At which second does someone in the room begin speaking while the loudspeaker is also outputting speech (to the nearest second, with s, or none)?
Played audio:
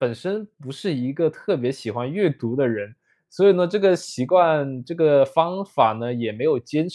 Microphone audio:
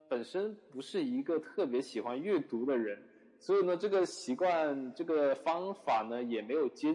none